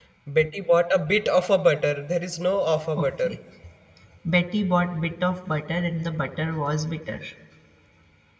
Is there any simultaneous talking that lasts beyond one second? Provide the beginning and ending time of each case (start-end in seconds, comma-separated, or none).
none